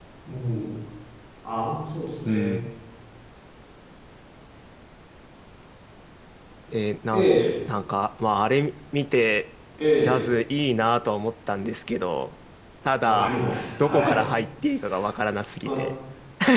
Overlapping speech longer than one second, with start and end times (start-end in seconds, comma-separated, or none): none